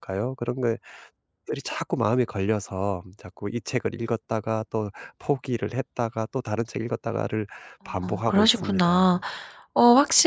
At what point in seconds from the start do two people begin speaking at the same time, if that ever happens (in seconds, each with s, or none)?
8.0 s